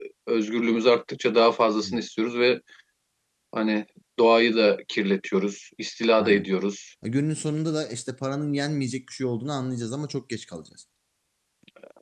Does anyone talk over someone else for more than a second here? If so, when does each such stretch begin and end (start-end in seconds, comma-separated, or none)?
none